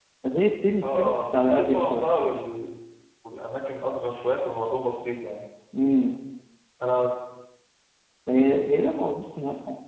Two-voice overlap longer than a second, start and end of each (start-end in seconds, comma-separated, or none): 0.8-2.2